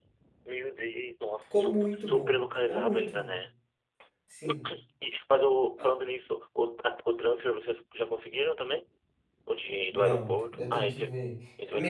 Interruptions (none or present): present